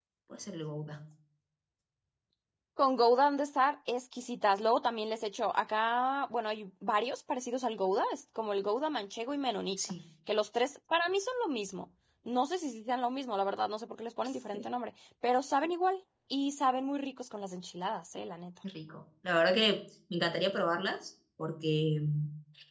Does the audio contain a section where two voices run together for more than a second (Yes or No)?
No